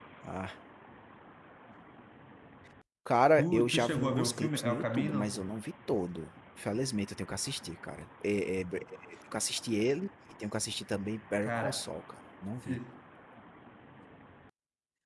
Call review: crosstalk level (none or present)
present